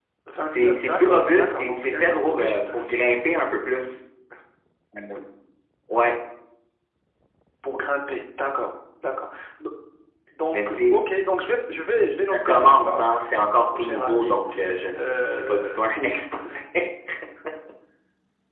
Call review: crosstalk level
present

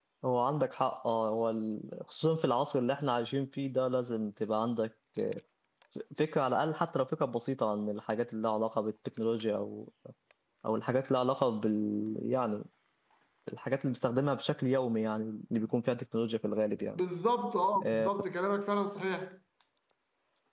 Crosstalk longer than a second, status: none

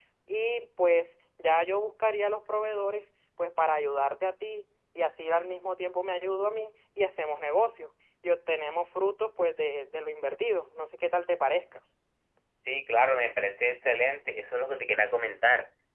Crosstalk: none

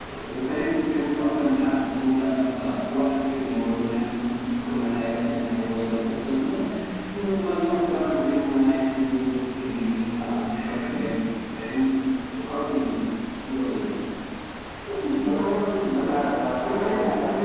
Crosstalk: present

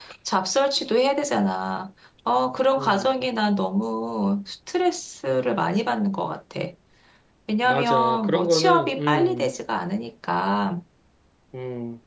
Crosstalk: present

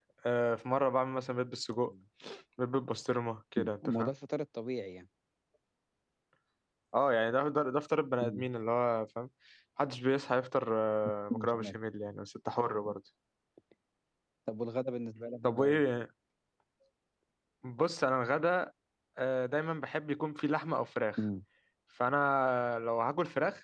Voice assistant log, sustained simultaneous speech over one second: none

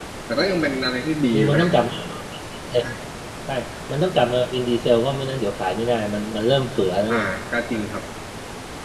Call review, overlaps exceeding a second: none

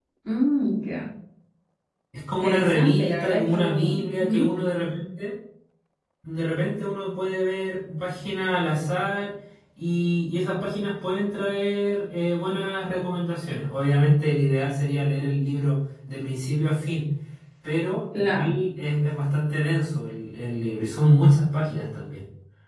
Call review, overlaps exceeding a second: present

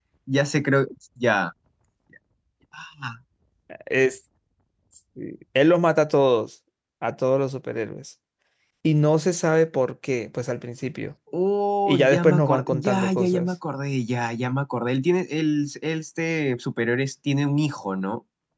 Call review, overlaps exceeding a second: present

